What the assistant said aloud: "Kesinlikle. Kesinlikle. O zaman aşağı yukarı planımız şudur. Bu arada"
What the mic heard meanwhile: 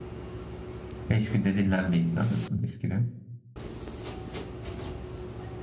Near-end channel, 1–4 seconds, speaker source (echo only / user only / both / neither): user only